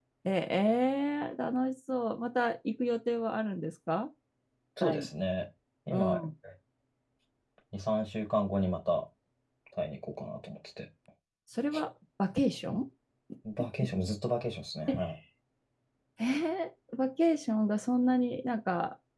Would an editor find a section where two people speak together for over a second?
No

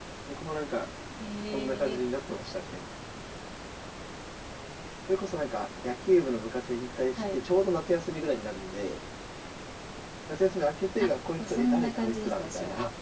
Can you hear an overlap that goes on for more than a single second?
Yes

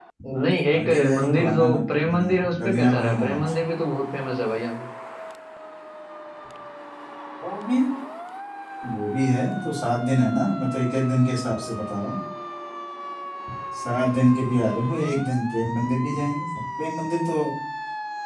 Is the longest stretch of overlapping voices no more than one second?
No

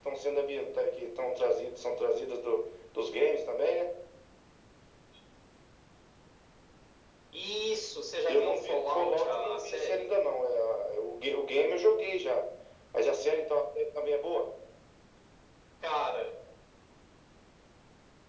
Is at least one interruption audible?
Yes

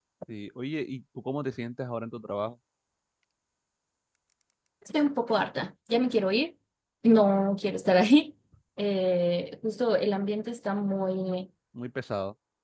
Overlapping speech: No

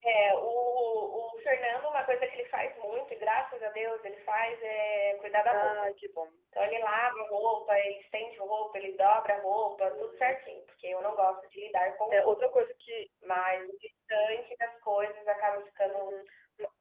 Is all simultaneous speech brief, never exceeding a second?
Yes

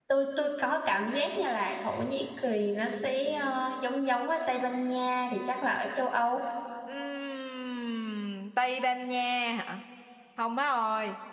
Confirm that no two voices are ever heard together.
Yes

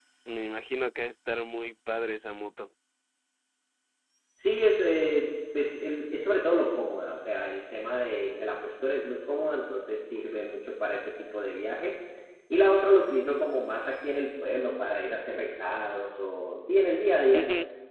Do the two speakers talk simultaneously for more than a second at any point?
No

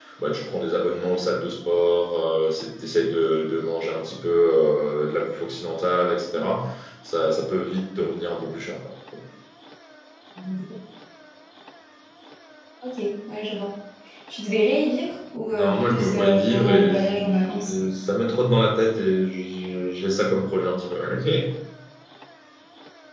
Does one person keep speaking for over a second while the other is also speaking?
Yes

